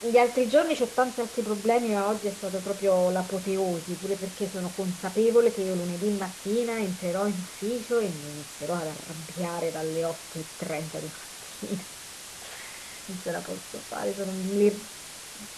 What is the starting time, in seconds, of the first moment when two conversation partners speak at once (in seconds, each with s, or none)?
none